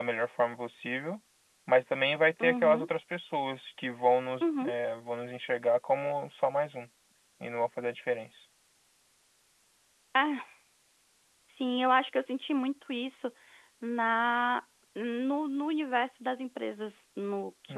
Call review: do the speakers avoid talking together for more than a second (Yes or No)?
Yes